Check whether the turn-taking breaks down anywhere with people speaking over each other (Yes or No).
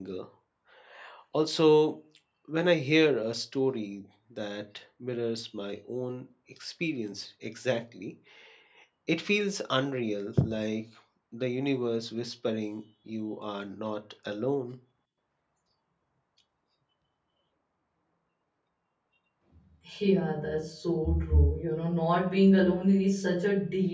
No